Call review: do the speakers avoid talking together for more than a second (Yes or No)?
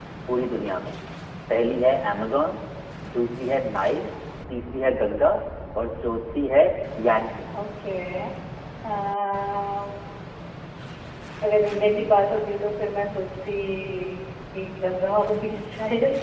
Yes